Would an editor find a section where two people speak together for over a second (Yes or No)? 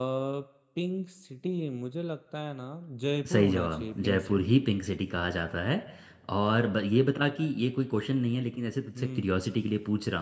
Yes